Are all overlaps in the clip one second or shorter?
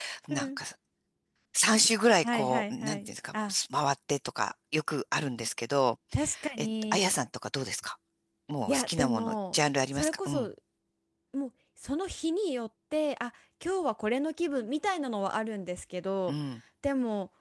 No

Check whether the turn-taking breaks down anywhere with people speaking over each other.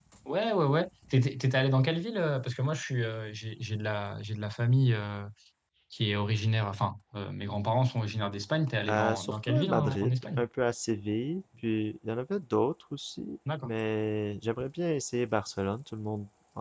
Yes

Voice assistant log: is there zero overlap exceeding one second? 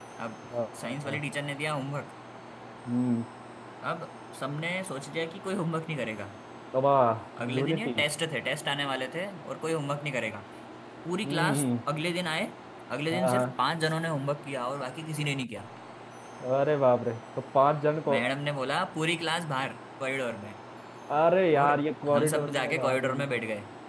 No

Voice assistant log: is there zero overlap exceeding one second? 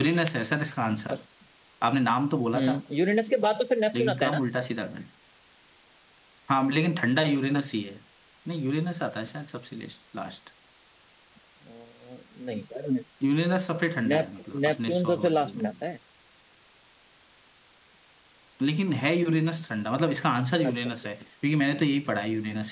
No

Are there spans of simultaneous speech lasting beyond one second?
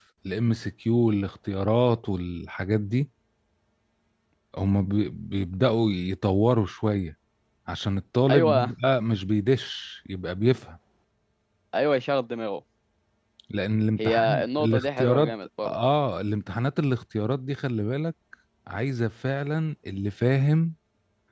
Yes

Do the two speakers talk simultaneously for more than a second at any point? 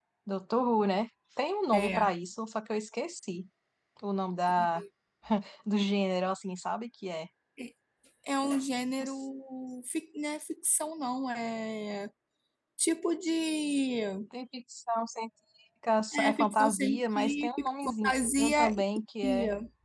Yes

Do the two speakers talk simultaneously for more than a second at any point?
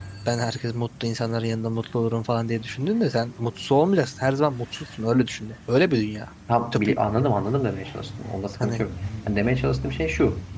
No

